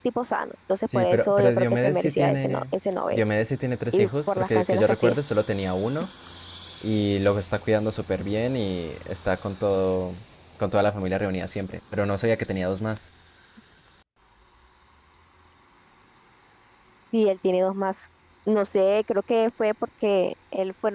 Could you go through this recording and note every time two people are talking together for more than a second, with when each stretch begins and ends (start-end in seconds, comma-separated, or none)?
0.8-2.6, 3.9-5.2